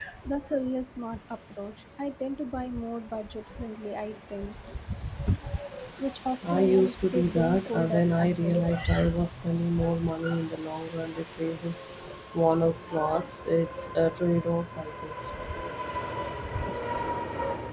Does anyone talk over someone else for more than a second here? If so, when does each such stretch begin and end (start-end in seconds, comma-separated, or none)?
6.5-8.6